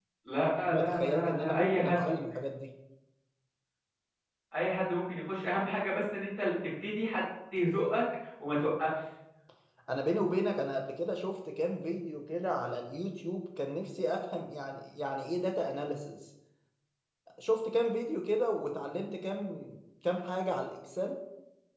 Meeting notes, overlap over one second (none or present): present